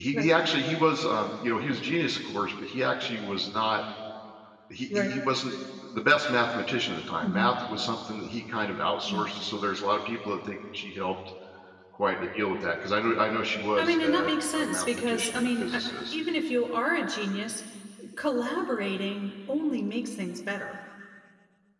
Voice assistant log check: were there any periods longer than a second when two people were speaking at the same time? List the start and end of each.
13.8-16.1

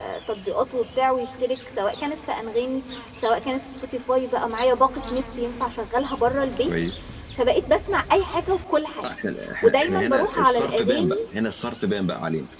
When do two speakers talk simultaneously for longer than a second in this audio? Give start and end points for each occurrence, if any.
9.6-11.2

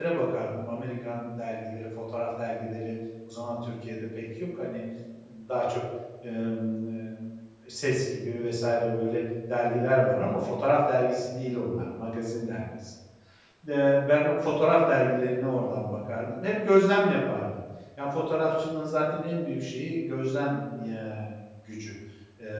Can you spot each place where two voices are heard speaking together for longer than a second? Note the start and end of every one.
none

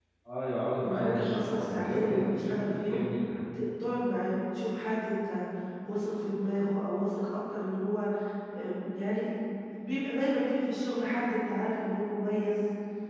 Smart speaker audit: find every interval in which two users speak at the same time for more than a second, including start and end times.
0.8-3.0

